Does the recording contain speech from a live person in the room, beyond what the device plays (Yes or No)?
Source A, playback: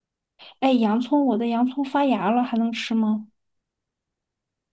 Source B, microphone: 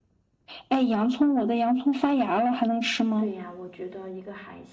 Yes